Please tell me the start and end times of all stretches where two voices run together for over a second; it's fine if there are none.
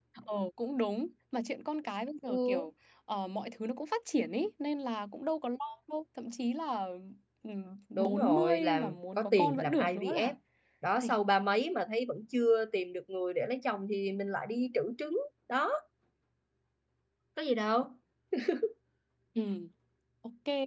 8.0-10.3

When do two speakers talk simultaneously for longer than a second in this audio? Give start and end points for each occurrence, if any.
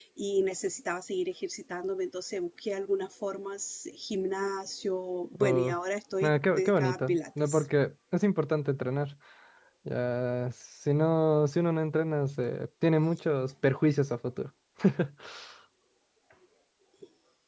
6.2-7.6

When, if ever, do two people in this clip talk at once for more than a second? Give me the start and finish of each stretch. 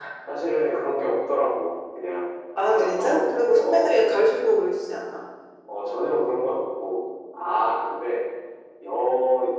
2.6-4.2

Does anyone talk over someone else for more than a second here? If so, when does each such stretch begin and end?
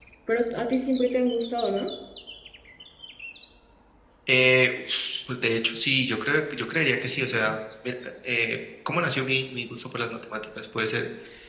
none

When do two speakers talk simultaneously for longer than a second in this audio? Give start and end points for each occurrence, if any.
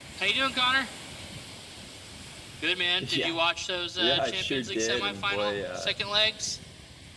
4.0-5.9

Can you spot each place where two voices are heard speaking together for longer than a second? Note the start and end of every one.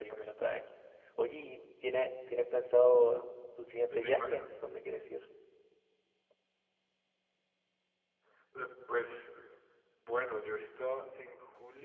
none

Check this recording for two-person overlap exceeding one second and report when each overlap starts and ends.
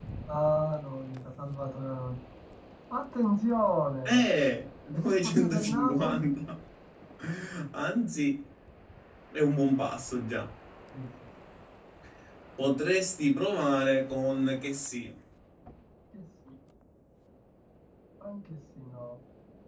4.9-6.3

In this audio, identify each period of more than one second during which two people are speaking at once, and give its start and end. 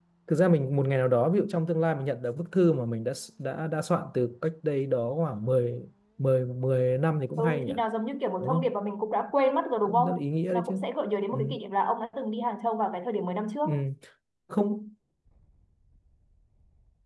none

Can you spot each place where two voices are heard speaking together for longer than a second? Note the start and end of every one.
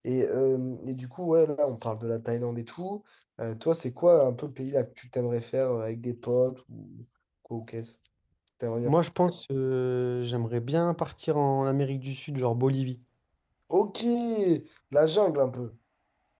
none

